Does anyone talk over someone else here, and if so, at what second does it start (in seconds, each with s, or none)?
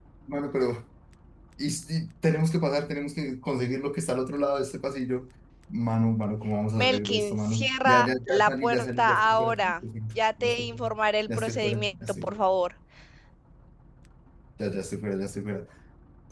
6.8 s